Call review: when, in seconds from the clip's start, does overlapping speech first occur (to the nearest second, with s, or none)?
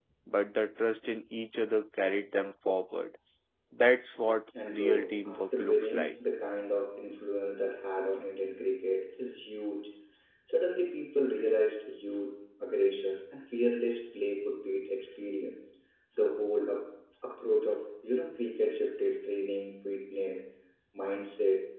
5 s